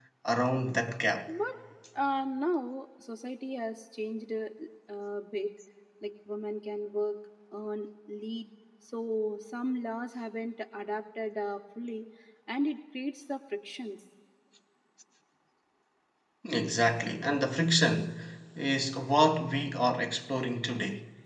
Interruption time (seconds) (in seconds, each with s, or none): none